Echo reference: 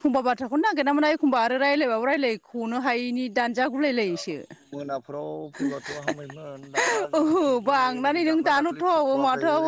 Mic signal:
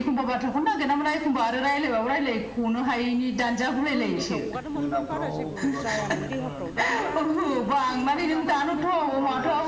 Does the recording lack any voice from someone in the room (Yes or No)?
No